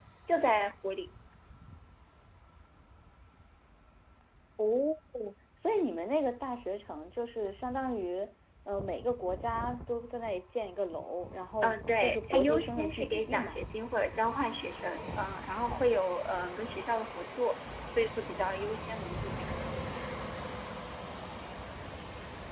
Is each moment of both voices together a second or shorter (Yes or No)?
No